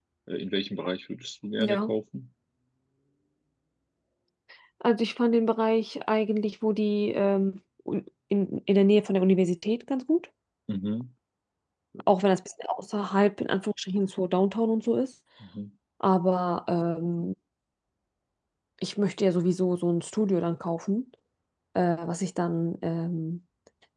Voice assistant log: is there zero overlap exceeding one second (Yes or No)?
Yes